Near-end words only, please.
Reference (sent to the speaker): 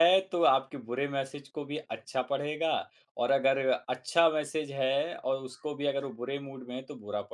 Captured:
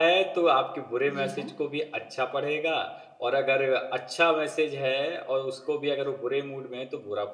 जी हाँ।

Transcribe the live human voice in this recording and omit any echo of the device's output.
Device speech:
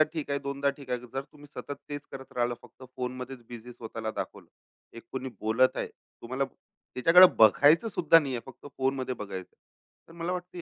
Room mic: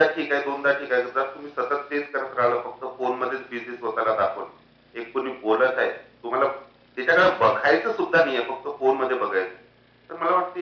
none

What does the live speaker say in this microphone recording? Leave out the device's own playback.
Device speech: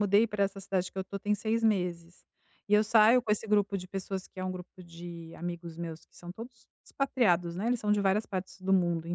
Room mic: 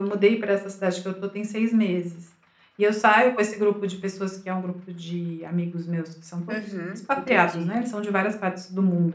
Uhum. Entendi.

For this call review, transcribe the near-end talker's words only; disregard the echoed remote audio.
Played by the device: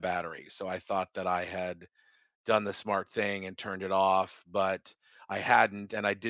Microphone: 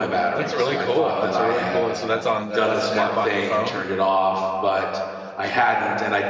That's really cool. That's a really cool. So that's on uh, that's an app on your phone.

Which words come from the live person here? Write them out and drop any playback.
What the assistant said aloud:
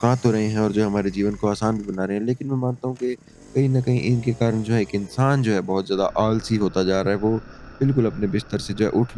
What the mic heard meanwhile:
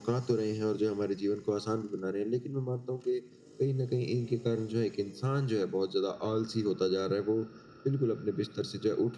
none

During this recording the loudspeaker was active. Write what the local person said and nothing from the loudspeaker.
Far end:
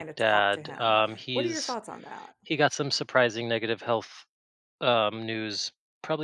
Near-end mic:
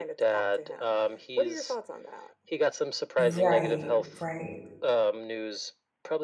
Right, right.

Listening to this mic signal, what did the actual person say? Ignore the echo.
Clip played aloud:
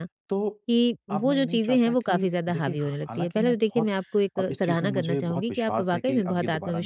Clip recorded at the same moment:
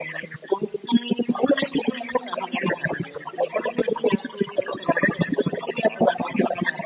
none

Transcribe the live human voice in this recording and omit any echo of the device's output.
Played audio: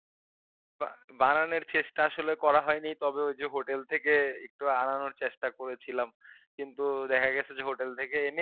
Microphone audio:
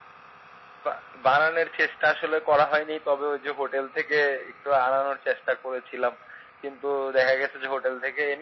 none

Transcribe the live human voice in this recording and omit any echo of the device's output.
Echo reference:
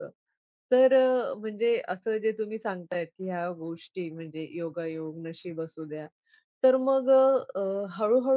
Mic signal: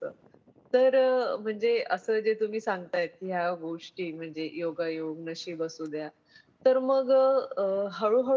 none

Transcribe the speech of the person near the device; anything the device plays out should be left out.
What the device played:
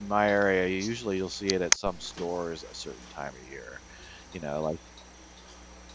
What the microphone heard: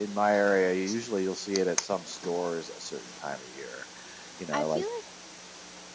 I feel like

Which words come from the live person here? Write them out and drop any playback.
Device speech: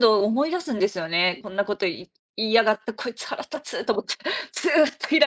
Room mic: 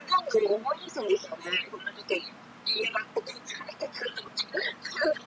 none

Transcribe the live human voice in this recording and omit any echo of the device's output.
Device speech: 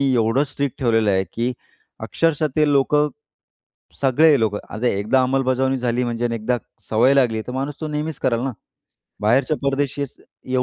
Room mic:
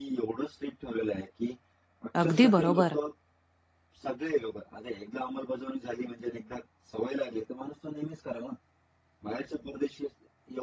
अगदी बरोबर.

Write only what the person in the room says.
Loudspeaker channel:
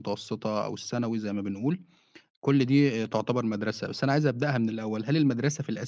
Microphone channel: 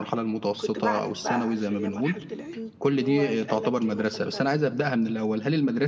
كنت باعند بقى، عارف اللي هي مرحلة العِند، اللي هو يتقال لك كلمة فأنت

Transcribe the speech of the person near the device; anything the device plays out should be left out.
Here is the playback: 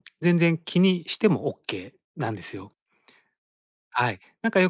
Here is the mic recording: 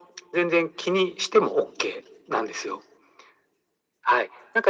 none

